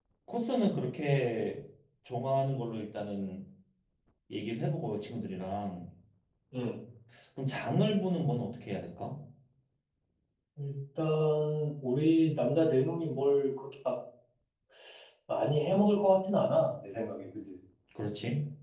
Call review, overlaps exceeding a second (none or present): none